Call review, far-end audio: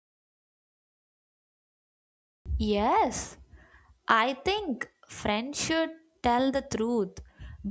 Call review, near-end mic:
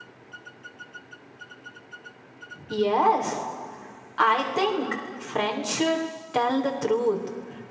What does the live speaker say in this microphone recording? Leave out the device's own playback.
none

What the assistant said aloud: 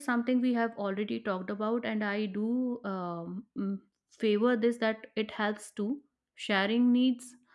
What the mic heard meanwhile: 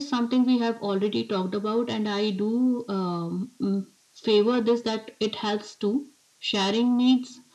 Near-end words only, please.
none

